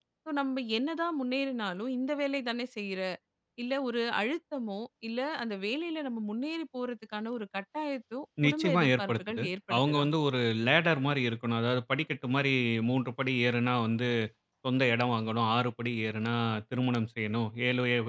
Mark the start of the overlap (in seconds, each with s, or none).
8.4 s